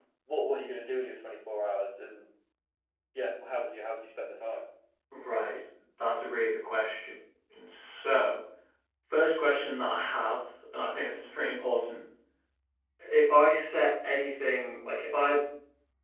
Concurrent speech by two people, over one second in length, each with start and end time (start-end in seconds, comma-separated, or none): none